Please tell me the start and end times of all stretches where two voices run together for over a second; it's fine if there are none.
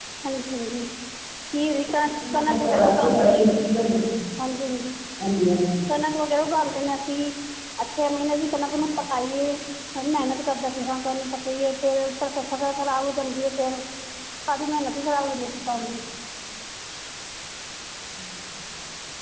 2.0-3.6

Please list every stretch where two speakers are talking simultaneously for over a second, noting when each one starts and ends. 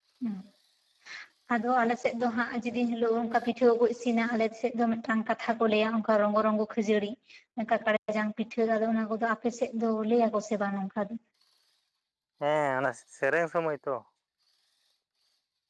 none

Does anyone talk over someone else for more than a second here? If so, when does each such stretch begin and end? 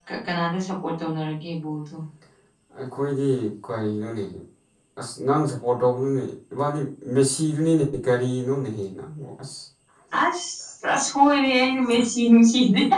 none

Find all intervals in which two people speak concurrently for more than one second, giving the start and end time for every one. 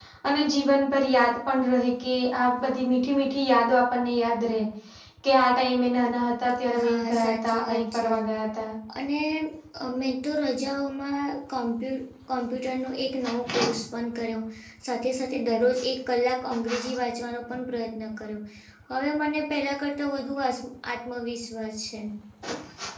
6.8-8.1

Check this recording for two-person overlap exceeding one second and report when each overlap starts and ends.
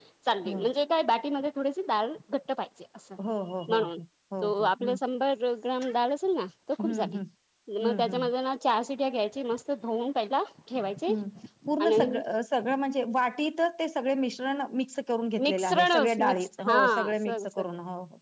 15.4-17.6

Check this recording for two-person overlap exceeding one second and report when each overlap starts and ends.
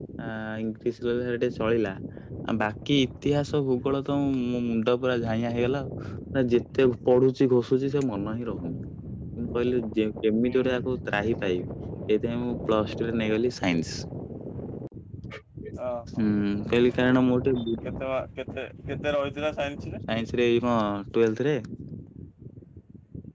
none

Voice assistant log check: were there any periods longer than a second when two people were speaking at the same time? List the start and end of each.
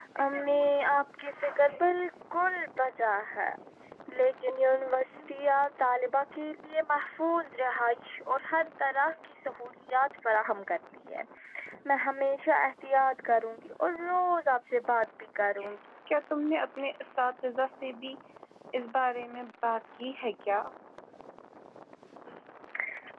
none

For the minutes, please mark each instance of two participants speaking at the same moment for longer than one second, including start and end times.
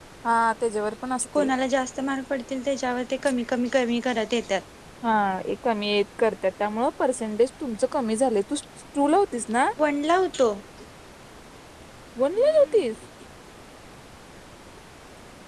none

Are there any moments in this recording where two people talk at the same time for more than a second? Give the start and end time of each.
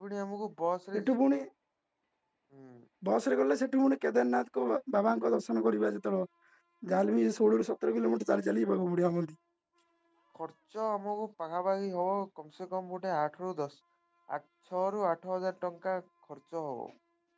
none

